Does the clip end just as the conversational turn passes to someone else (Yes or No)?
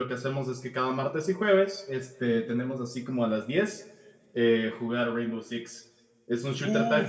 Yes